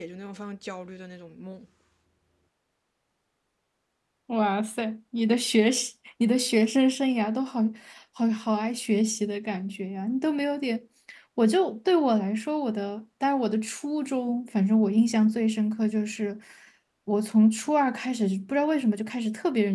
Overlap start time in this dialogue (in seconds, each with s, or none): none